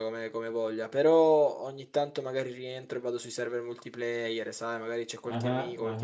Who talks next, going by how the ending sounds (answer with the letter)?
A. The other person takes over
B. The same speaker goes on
B